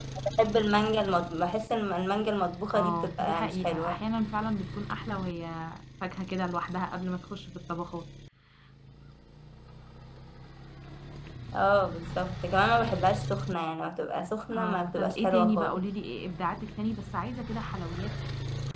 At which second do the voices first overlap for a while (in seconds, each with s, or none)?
2.7 s